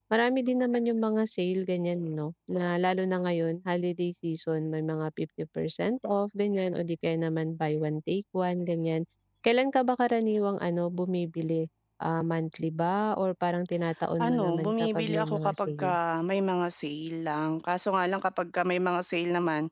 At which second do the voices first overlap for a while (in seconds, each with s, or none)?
14.2 s